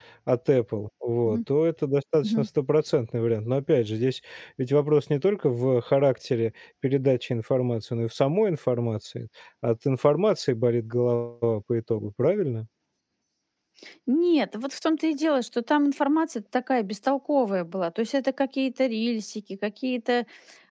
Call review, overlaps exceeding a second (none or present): none